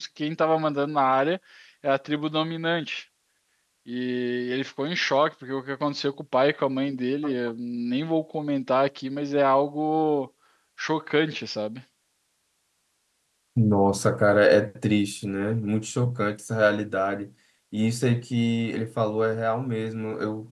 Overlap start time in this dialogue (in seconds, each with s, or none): none